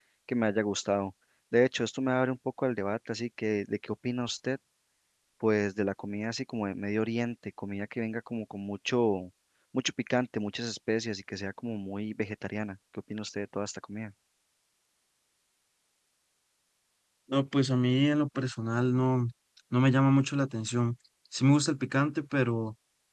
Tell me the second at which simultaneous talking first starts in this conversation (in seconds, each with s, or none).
none